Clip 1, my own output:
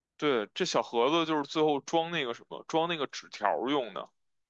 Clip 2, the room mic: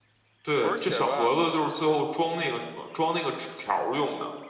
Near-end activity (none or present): present